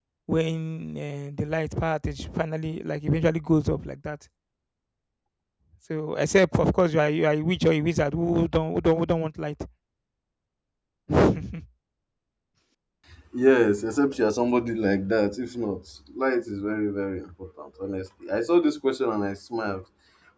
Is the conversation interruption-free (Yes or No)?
Yes